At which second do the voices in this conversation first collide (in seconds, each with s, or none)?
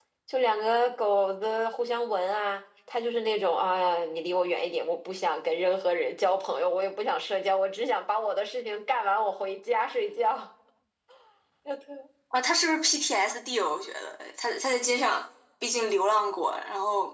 none